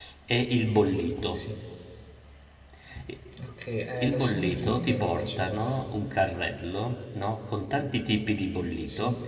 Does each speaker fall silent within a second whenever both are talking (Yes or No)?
No